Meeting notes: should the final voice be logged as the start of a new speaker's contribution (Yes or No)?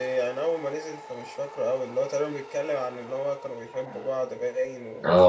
Yes